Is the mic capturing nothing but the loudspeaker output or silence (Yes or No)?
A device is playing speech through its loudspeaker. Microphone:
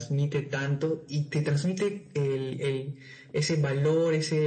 Yes